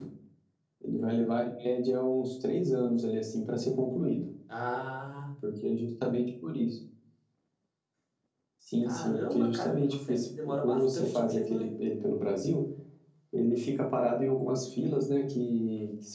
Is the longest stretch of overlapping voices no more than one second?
No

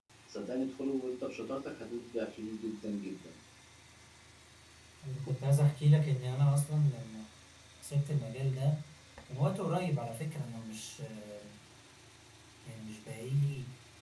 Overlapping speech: No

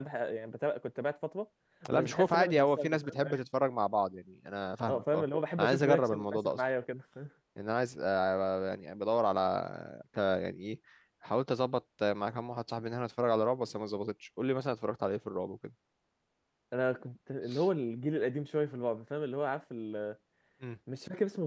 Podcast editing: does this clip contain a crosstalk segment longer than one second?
Yes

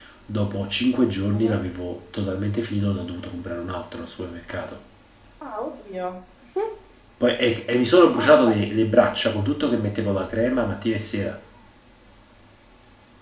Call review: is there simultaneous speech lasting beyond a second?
No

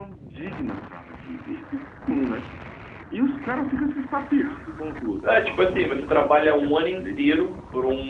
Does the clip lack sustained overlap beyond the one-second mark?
No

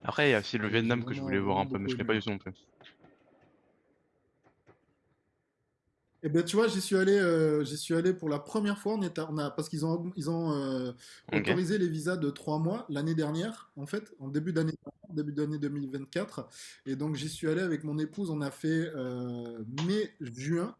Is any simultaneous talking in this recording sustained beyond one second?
Yes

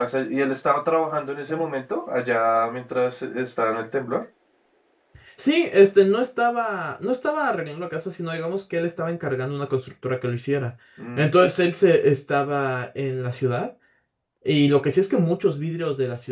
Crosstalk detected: No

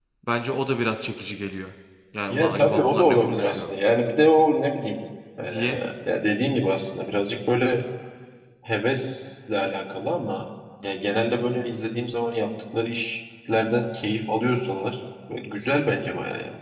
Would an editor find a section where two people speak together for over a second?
Yes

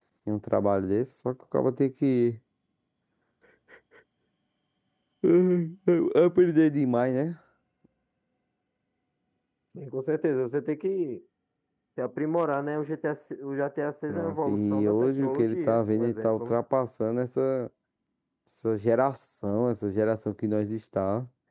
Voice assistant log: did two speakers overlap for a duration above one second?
Yes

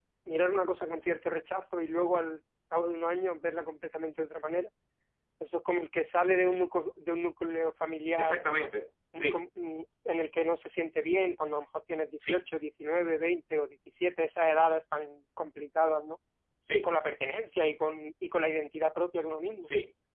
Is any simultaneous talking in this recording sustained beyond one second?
No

